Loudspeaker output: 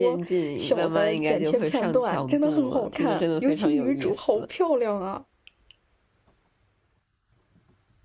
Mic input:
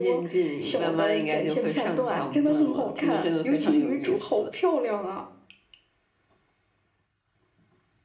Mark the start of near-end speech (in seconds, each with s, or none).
none